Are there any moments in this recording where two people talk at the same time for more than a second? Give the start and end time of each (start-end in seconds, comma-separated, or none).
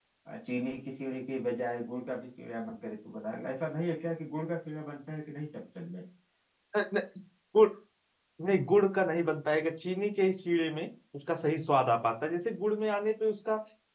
none